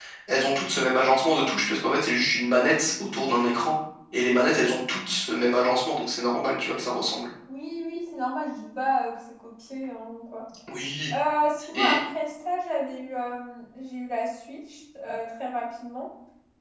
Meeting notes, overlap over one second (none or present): none